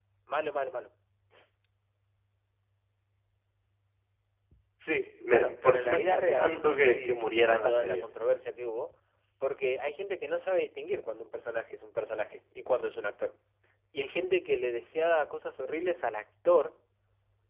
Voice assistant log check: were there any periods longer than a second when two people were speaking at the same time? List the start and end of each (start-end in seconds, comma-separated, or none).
5.3-8.0